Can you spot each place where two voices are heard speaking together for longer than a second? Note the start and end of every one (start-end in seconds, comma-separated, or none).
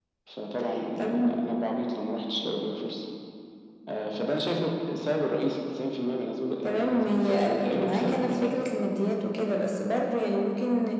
6.6-8.5